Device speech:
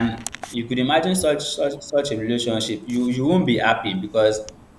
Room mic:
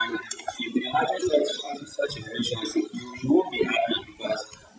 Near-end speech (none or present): none